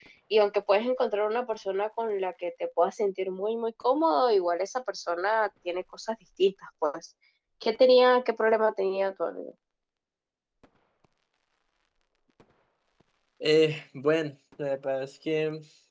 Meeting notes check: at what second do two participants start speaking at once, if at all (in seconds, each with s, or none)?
none